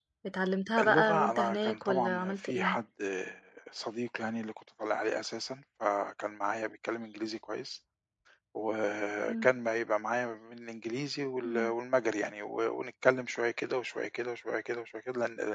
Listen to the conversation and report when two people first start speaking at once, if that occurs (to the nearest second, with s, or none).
1 s